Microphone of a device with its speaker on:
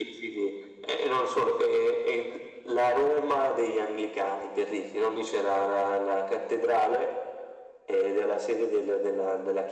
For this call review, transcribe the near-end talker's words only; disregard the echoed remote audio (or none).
none